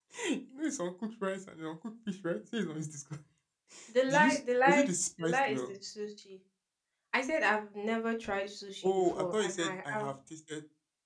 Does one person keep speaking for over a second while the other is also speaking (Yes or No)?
Yes